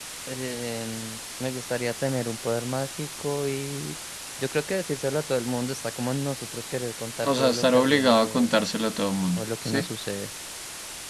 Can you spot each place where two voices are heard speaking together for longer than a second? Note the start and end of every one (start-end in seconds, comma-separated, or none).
7.2-8.5